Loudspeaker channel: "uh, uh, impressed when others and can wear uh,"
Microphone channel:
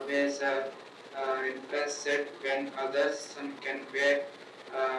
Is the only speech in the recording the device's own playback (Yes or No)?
Yes